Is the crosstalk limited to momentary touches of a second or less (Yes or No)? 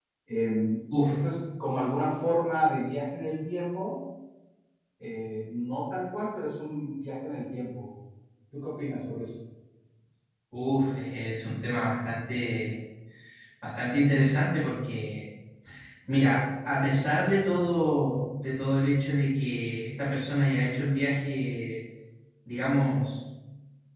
Yes